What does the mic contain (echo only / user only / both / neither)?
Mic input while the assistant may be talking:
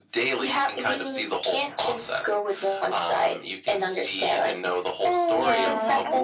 both